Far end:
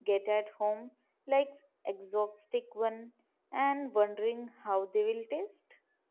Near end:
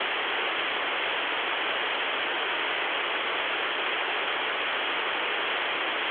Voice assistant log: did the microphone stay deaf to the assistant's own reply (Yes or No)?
Yes